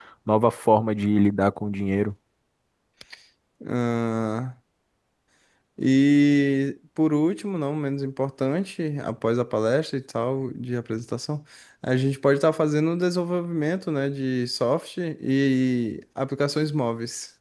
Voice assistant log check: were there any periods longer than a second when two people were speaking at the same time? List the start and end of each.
none

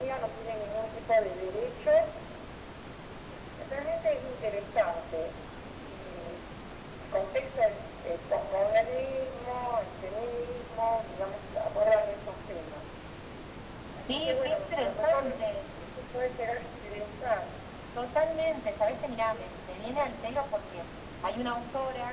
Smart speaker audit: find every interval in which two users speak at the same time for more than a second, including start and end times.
14.0-15.4

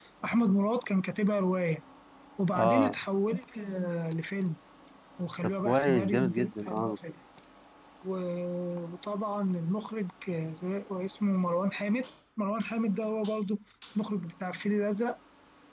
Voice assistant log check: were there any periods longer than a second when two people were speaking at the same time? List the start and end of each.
5.4-7.0

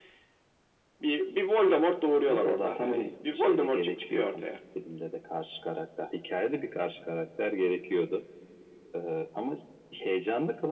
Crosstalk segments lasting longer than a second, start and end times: 2.3-4.5

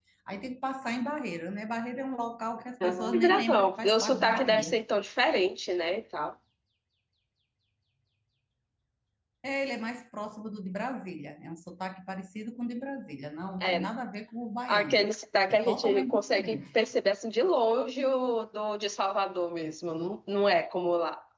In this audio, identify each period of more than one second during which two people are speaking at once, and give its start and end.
2.8-4.7, 15.5-16.8

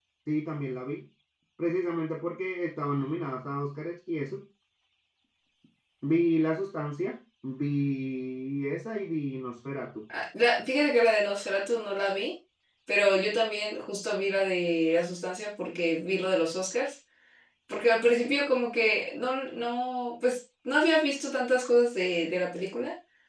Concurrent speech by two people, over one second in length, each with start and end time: none

